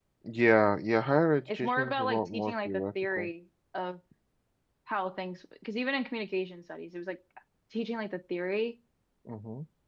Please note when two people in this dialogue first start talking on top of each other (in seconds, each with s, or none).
1.5 s